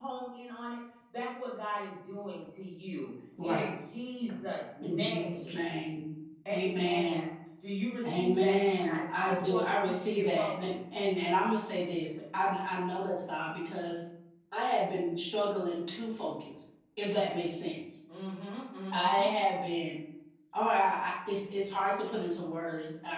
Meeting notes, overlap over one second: present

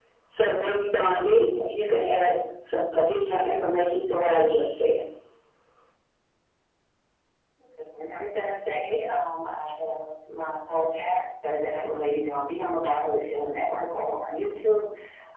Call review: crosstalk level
none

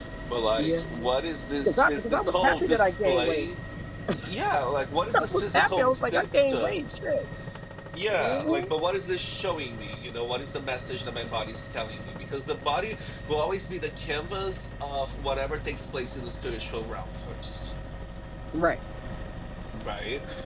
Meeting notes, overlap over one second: present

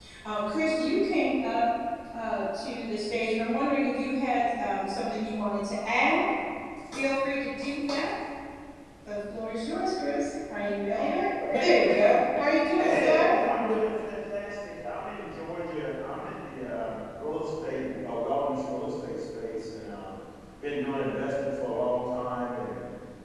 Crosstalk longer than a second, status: none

